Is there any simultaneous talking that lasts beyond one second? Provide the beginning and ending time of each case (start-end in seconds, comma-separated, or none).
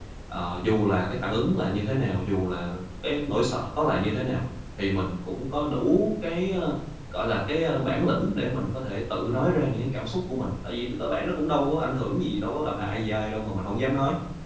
none